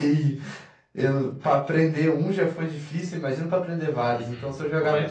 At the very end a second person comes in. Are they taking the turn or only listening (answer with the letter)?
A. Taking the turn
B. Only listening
A